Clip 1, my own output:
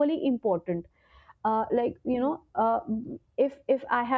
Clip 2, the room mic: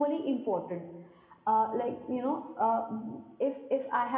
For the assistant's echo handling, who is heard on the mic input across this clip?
echo only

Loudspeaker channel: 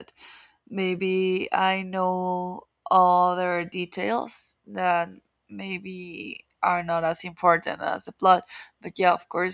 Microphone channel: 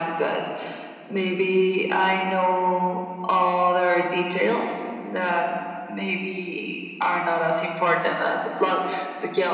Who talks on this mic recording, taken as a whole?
echo only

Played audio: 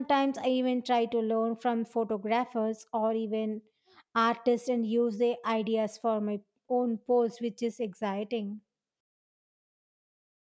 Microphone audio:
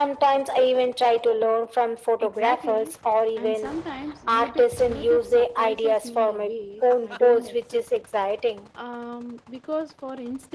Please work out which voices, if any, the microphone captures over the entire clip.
both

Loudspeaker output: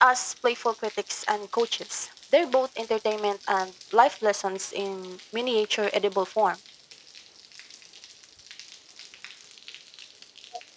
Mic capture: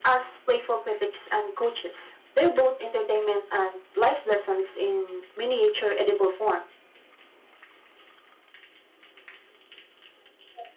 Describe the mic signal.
echo only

